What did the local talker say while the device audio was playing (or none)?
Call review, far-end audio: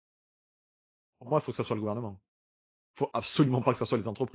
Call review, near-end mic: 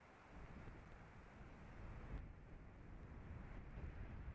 none